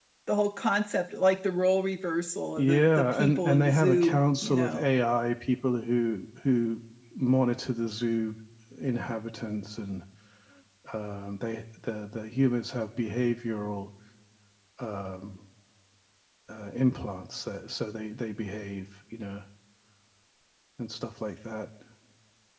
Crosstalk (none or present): present